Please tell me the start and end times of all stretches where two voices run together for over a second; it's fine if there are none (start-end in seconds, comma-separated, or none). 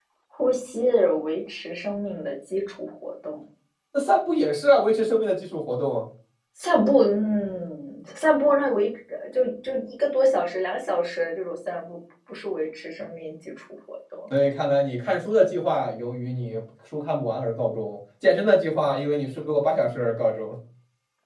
none